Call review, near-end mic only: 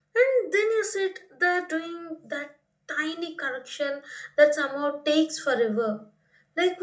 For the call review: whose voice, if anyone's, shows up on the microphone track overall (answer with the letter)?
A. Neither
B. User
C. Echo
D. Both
B